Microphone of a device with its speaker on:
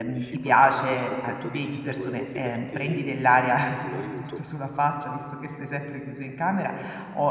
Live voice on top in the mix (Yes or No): Yes